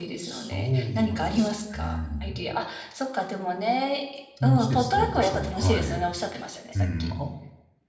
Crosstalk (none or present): present